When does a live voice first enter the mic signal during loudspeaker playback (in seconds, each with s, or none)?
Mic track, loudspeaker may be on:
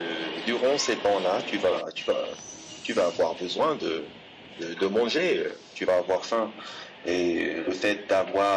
none